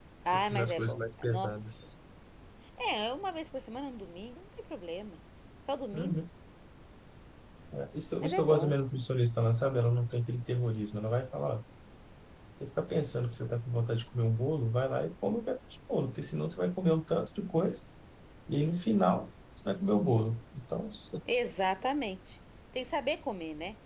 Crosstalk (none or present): present